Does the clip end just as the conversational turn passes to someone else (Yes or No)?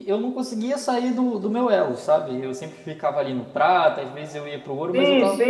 Yes